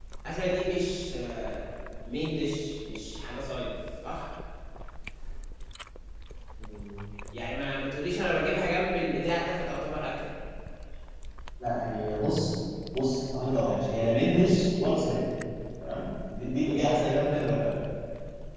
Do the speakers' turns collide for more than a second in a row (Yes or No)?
No